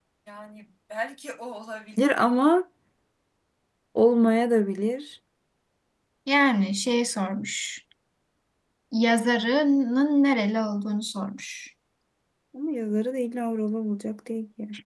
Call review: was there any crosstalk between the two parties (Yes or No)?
No